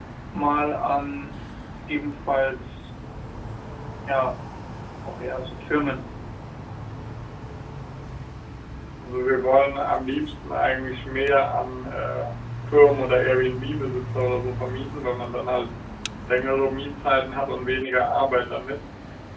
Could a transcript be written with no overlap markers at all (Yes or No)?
Yes